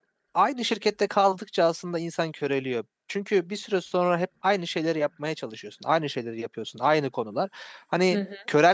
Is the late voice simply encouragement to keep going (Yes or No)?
Yes